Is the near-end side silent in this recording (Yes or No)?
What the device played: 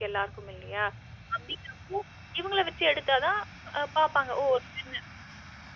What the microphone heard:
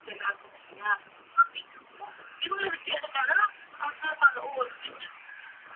Yes